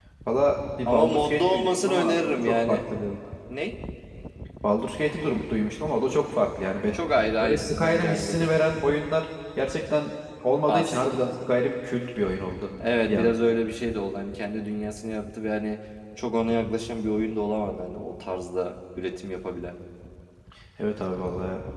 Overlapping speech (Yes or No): Yes